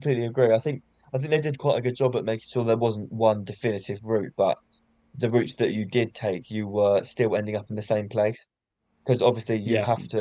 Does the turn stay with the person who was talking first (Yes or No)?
Yes